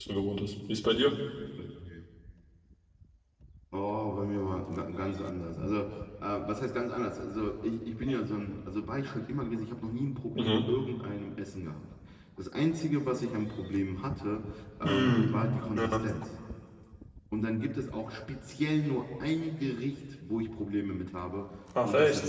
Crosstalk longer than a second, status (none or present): none